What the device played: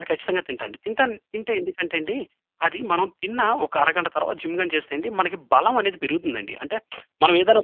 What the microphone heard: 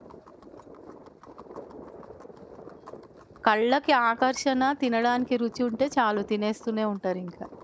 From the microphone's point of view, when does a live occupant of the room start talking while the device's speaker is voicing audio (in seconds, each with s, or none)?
3.5 s